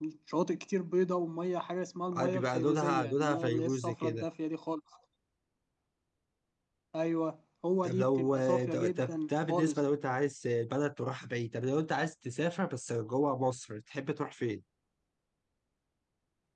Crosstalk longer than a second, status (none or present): present